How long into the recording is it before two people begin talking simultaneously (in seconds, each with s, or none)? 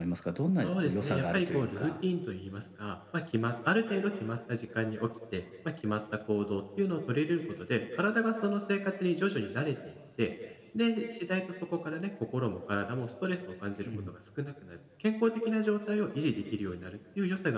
0.6 s